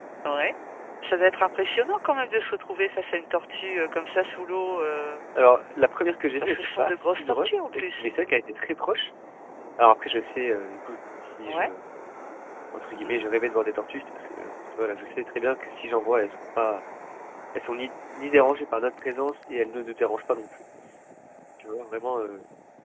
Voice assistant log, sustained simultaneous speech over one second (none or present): present